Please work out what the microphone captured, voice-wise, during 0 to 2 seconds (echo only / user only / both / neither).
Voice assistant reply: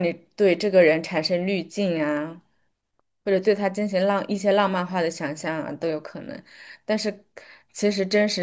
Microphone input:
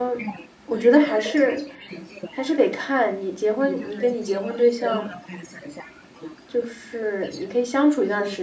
both